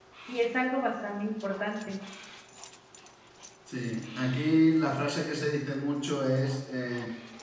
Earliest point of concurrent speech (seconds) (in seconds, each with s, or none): none